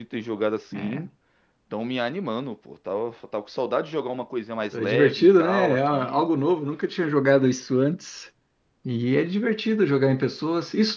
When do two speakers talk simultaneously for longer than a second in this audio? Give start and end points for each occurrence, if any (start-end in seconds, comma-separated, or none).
4.7-6.2